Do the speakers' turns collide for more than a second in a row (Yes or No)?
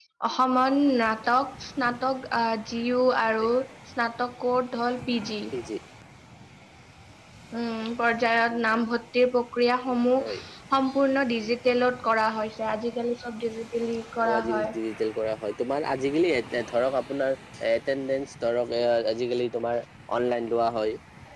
No